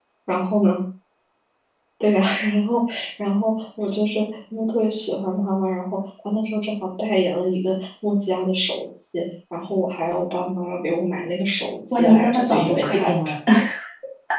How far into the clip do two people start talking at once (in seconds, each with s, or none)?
11.9 s